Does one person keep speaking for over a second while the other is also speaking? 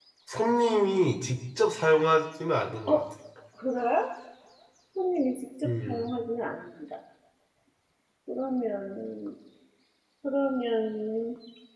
No

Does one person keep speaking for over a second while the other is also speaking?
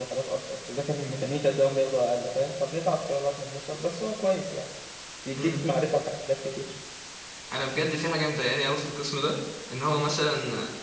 No

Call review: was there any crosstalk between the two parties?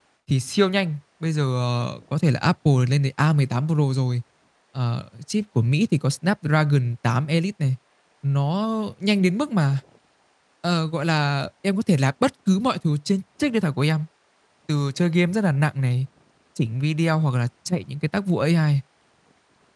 No

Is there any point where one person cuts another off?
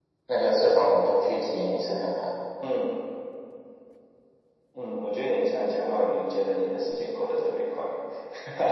No

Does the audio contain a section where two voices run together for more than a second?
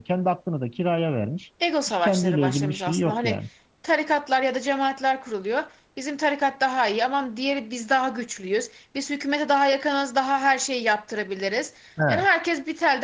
Yes, from 1.9 s

